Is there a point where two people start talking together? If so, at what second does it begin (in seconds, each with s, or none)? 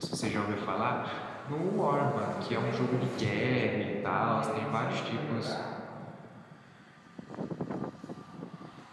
1.9 s